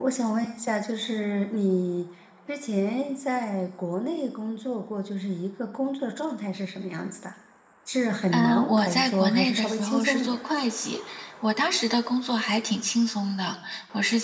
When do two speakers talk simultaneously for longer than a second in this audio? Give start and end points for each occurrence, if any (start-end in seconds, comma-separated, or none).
8.3-10.4